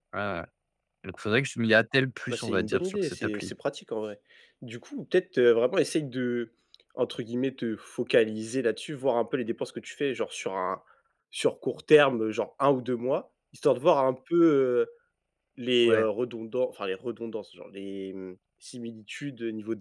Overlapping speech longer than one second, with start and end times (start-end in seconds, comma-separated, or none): 2.3-3.5